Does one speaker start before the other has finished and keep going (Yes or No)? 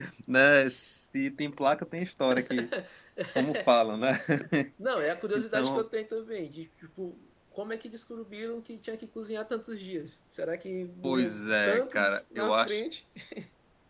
Yes